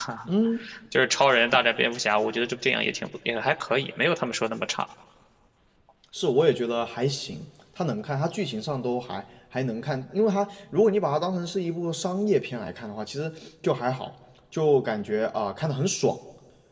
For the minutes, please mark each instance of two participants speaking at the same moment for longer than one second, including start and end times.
none

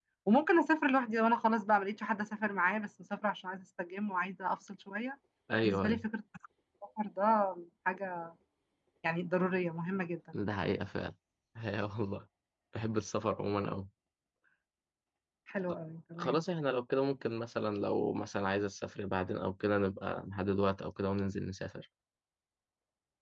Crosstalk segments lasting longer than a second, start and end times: none

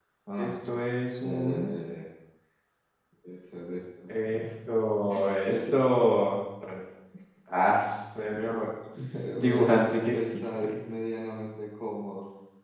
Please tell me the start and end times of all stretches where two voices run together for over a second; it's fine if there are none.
9.4-10.8

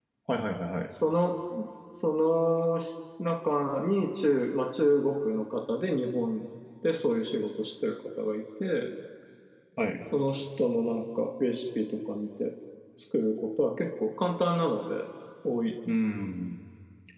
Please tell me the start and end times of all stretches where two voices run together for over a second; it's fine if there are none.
none

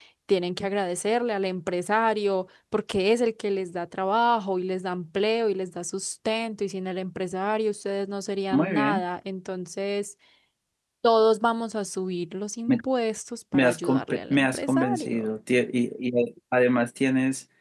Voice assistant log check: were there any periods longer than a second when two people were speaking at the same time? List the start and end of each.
13.5-15.3

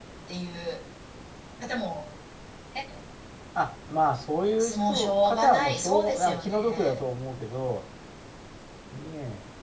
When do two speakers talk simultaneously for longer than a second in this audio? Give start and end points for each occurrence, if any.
4.8-7.0

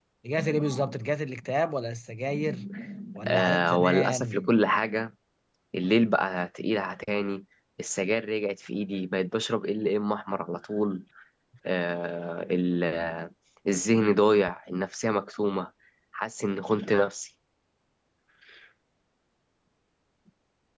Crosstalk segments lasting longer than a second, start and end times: 3.3-4.5

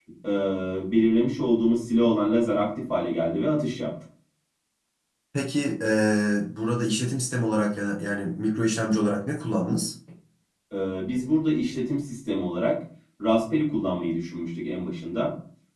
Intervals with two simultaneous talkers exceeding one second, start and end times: none

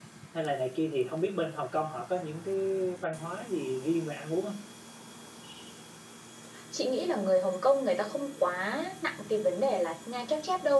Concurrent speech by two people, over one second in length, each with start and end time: none

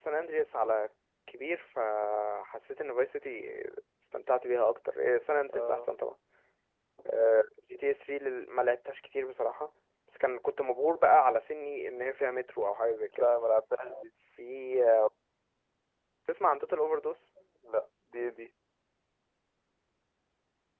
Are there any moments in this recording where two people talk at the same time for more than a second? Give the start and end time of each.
none

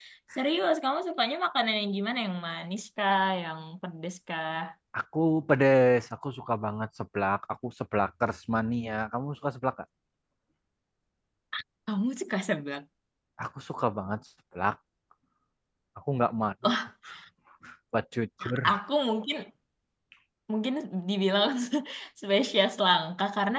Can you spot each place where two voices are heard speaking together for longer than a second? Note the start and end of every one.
none

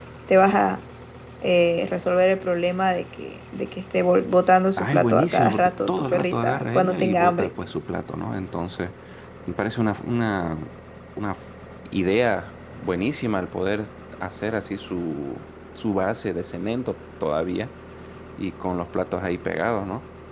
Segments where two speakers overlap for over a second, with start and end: 4.8-7.5

